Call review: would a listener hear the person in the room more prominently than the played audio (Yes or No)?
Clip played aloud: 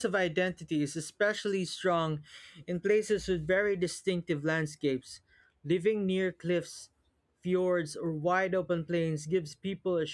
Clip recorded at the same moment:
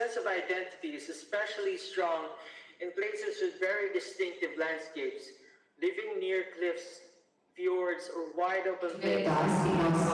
Yes